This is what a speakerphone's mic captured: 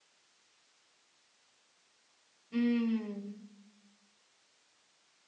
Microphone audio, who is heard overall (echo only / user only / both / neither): user only